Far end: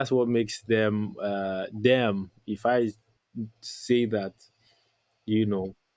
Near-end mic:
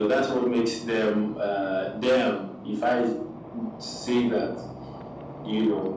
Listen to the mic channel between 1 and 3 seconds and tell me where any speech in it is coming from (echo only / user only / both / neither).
echo only